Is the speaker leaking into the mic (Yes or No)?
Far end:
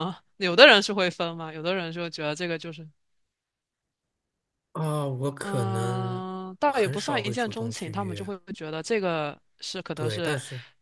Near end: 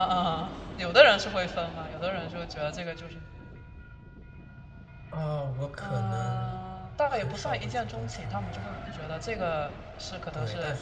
Yes